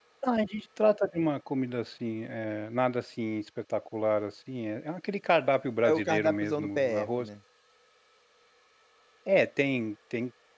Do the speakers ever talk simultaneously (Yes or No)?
Yes